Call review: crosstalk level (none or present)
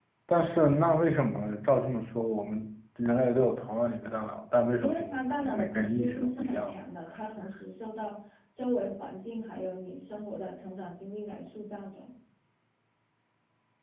present